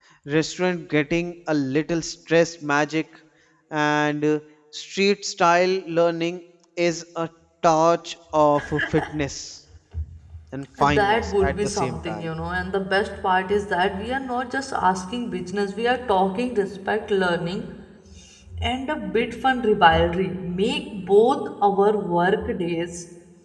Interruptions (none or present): present